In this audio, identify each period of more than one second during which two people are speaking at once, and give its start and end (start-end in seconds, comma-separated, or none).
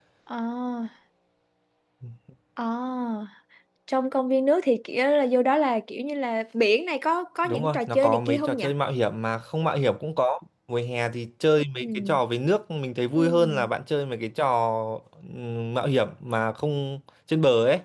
7.4-8.7